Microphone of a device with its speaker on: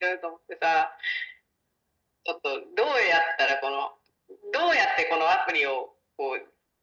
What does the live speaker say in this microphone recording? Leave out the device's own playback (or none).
none